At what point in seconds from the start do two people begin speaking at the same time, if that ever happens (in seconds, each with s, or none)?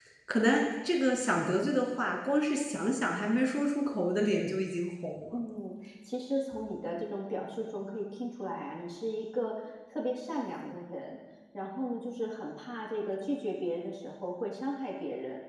none